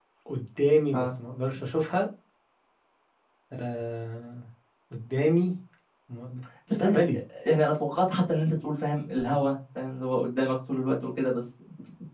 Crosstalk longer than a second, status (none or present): none